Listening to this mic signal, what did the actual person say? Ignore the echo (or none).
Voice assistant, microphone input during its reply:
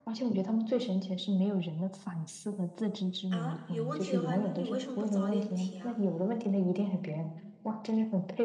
啊，有问题的话，那你为什么不早点提啊？